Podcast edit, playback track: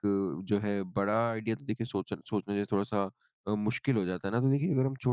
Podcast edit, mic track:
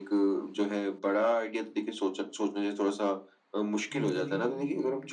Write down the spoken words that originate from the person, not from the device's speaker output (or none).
हुँ, जी।